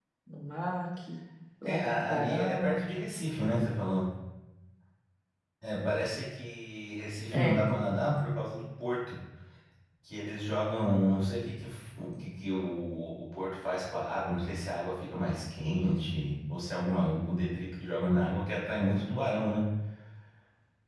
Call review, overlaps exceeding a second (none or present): present